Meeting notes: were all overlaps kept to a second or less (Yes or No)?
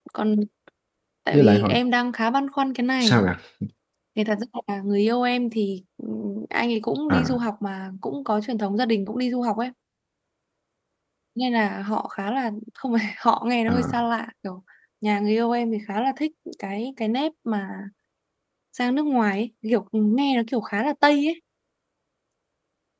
Yes